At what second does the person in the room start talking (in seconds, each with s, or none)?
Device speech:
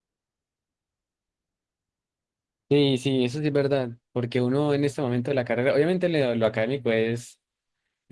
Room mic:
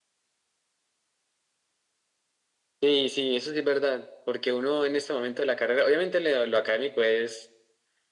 none